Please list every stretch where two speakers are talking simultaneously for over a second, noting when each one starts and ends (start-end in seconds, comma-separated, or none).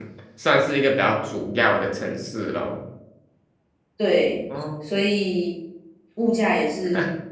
none